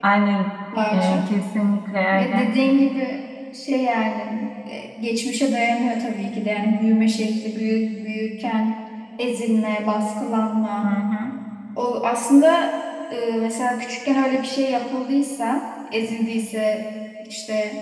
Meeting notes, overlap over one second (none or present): none